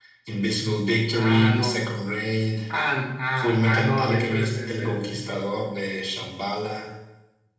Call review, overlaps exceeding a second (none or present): present